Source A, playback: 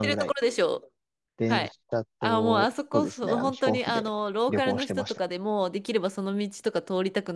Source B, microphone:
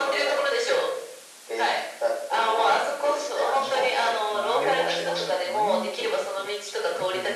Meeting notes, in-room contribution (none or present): present